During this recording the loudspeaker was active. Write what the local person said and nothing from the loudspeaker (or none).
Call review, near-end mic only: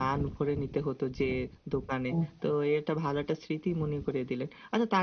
হ্যাঁ, হ্যাঁ।